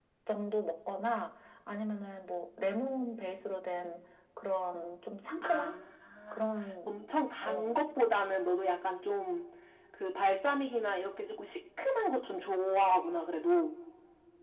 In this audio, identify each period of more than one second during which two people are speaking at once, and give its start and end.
none

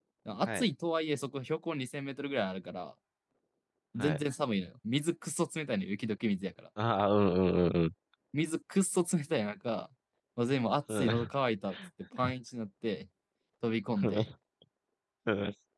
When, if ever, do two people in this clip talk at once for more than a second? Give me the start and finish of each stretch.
none

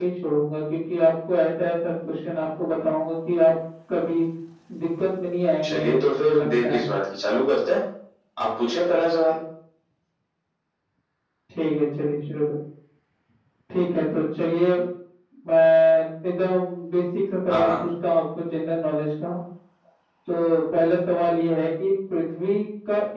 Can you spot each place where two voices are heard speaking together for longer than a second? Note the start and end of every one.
5.6-6.8

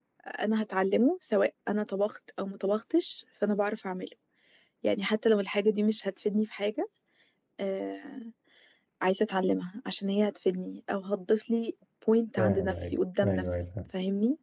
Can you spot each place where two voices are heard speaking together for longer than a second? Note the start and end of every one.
12.4-13.6

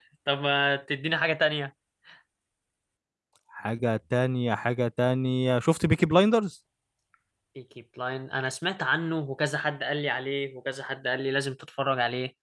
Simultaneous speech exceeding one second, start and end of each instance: none

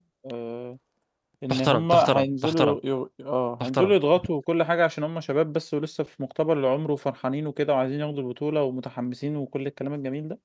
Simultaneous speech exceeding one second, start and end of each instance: 1.5-2.8

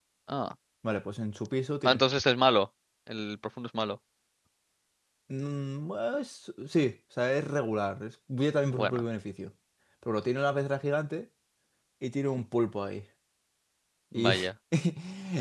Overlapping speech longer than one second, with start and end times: none

